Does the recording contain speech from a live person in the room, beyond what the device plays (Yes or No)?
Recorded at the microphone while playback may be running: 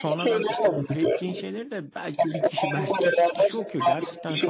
Yes